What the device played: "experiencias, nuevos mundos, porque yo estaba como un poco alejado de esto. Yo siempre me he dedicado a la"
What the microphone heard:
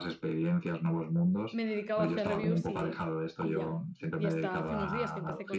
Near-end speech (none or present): present